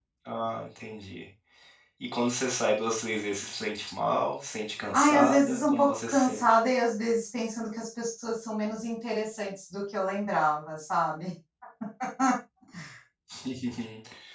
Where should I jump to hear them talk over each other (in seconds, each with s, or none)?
4.9 s